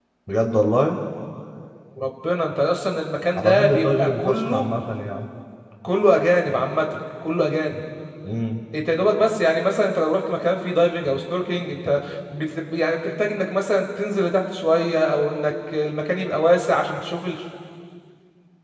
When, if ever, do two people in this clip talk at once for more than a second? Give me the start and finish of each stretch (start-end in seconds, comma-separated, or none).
3.4-4.7